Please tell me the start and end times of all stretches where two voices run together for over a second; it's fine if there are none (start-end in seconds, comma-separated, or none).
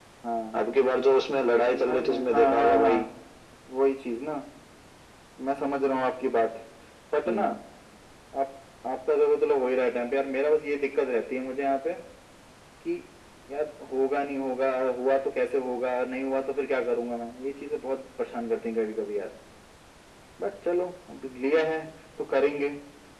1.6-3.1